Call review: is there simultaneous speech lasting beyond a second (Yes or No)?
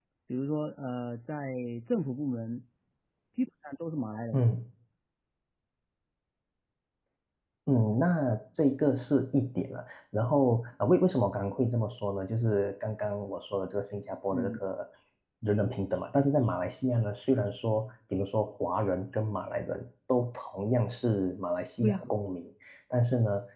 No